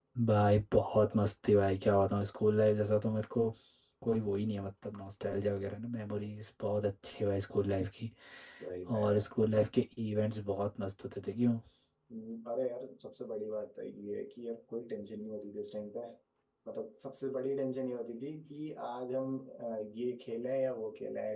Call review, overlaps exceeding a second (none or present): none